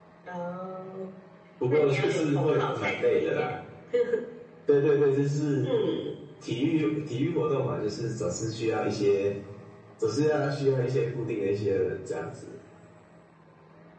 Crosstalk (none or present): present